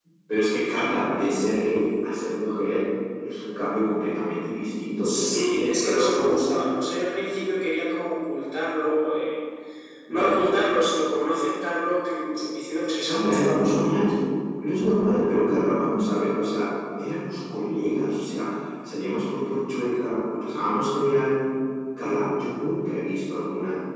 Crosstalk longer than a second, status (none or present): present